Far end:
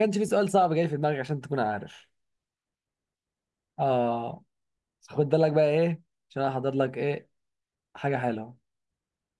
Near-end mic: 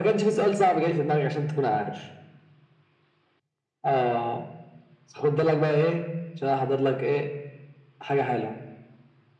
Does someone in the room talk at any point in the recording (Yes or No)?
No